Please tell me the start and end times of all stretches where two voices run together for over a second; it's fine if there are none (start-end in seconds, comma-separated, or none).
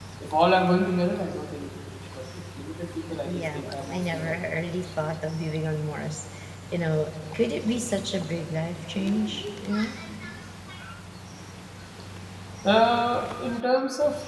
3.2-4.7